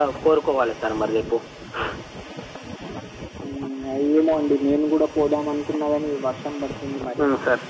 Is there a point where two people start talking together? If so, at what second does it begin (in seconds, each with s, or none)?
none